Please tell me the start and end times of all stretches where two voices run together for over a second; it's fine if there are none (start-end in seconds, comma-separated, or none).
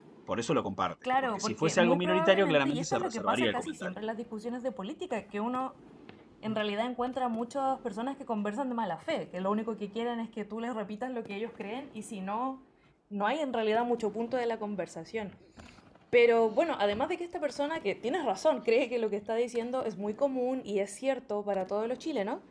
1.2-3.9